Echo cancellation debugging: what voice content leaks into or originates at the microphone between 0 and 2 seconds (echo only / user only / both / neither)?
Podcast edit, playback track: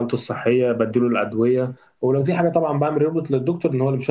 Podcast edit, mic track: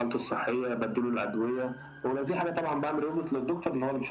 echo only